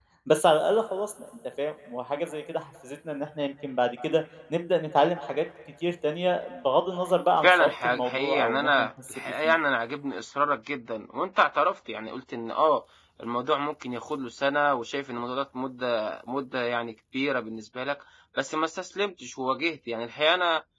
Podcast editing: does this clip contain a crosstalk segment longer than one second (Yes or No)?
Yes